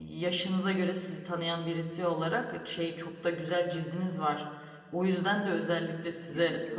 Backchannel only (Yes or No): Yes